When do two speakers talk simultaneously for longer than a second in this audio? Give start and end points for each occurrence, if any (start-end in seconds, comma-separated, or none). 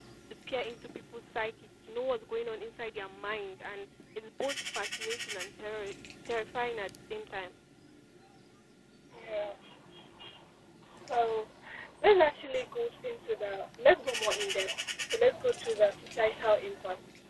none